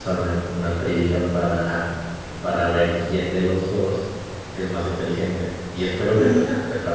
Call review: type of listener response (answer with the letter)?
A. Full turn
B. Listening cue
B